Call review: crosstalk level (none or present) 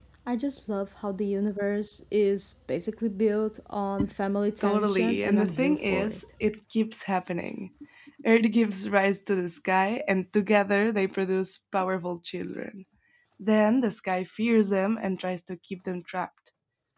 present